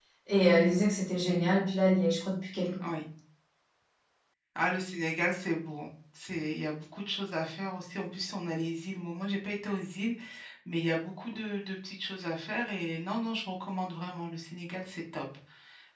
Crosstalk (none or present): none